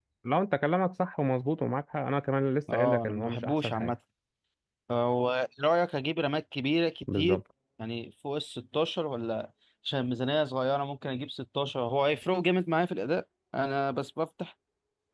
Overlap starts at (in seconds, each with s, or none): 2.7 s